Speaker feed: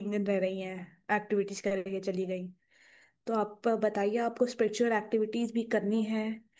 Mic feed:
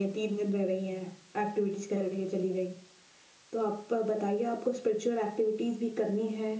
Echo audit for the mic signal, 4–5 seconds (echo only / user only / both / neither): echo only